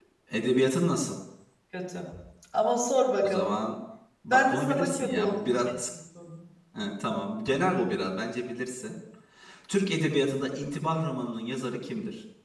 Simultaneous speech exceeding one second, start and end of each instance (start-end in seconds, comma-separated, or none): 4.3-5.8